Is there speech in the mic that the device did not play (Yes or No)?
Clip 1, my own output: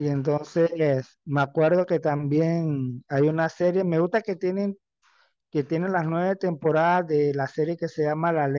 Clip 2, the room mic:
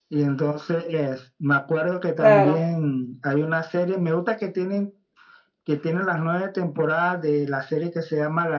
Yes